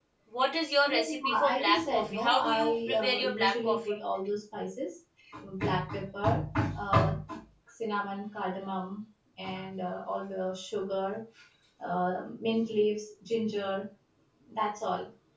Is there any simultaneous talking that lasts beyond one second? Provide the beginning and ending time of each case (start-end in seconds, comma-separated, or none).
0.9-4.0